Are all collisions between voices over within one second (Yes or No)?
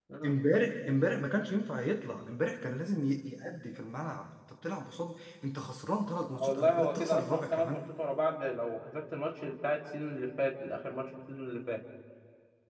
No